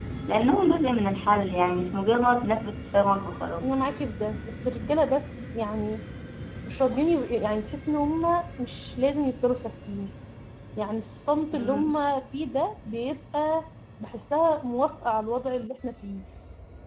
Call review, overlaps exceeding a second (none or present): none